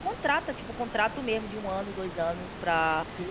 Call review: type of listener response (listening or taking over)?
taking over